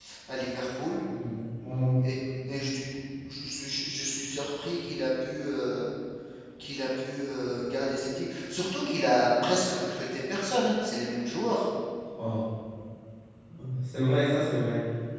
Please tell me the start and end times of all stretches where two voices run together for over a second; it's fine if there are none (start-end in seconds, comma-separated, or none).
none